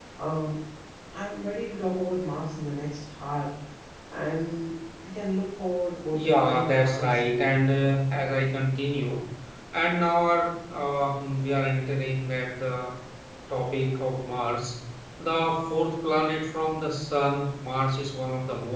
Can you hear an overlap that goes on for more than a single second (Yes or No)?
Yes